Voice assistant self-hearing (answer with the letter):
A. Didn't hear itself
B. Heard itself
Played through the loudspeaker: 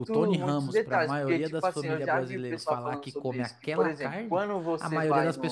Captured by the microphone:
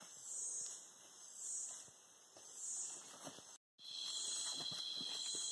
A